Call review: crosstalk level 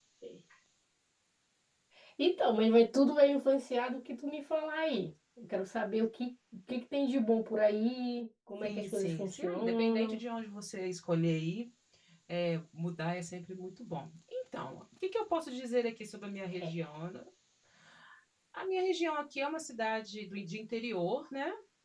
present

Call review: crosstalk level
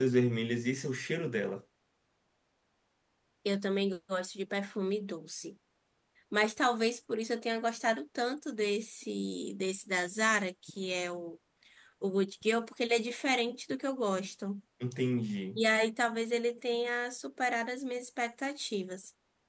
none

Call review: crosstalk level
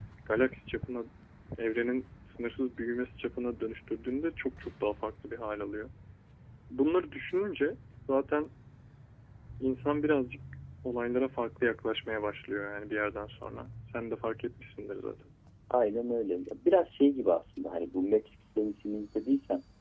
none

